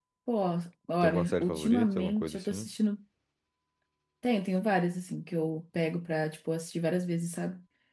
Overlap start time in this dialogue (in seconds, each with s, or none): 1.0 s